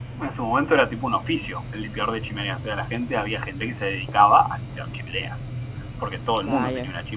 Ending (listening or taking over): listening